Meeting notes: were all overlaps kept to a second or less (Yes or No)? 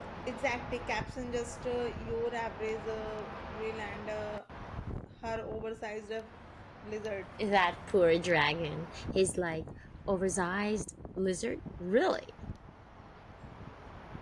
Yes